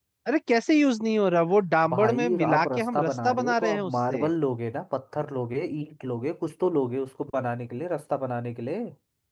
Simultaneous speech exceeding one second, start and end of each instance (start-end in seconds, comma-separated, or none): 1.9-4.3